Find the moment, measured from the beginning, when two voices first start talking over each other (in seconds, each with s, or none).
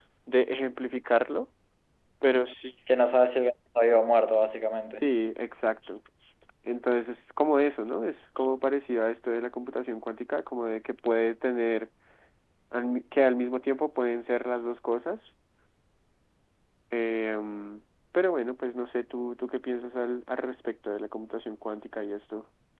none